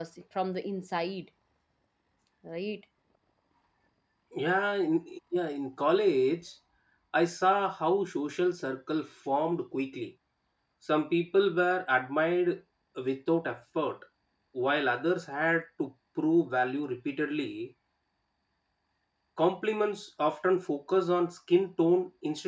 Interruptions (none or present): none